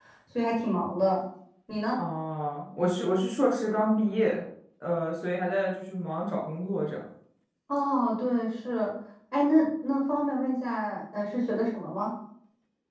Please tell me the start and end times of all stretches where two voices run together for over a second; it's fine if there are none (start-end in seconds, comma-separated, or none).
none